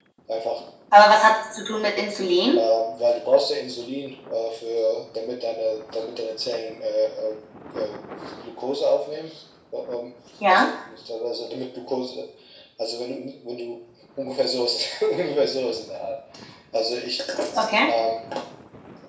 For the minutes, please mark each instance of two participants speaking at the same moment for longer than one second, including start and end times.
none

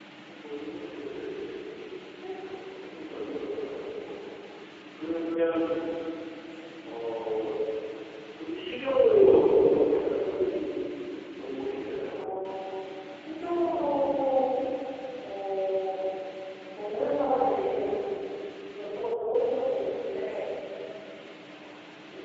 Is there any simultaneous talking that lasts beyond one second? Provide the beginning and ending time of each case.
none

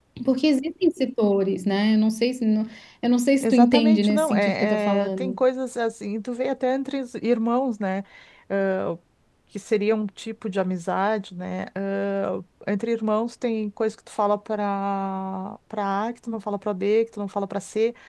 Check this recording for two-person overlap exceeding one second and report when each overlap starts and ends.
3.4-5.4

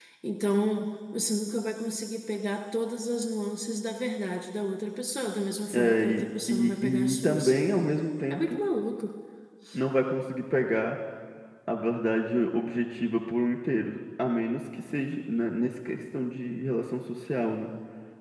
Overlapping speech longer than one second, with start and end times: 5.7-7.5

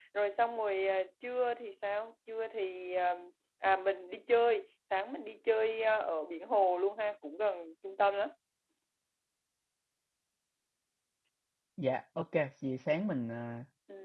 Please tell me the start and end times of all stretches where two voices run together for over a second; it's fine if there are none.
none

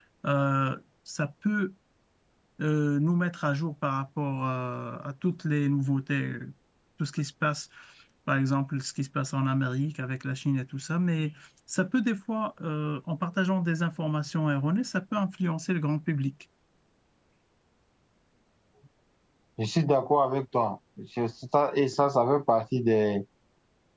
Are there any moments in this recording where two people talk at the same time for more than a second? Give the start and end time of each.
none

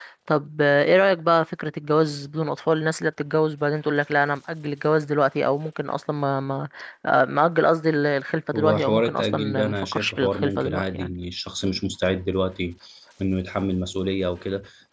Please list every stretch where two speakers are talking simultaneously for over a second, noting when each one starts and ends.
8.6-11.1

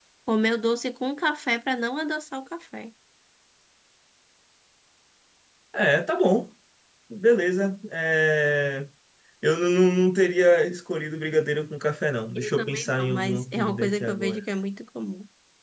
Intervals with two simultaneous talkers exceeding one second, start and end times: 12.4-14.4

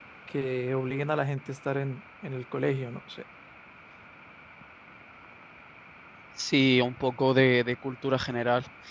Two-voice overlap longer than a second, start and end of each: none

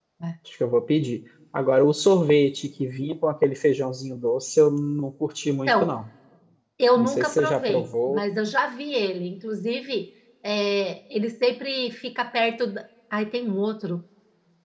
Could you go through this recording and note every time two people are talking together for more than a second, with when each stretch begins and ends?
7.0-8.2

